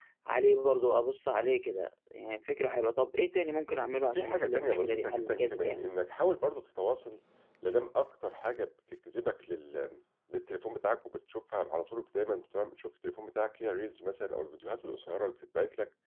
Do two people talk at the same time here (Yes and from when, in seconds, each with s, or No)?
Yes, from 4.1 s